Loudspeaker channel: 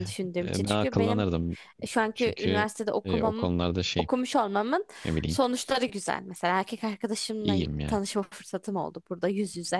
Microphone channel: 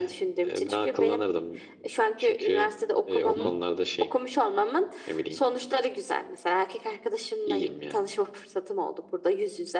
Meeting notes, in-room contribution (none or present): present